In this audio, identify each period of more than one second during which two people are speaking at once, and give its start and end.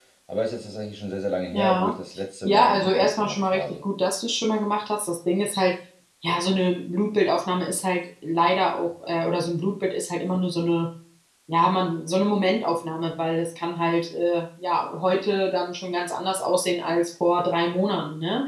2.5-3.8

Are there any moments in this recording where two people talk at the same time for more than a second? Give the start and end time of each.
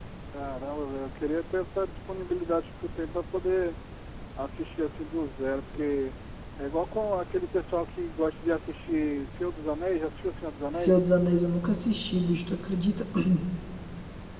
none

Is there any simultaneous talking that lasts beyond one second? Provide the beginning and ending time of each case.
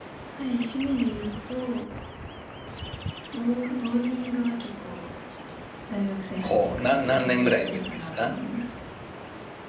6.4-8.3

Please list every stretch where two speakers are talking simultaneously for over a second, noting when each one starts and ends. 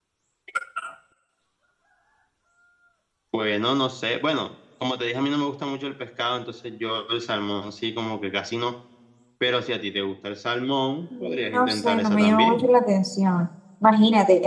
11.2-12.7

